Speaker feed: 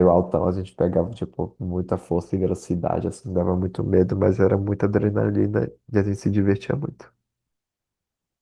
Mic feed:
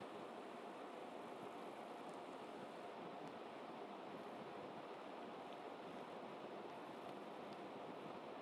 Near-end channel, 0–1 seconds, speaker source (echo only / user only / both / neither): neither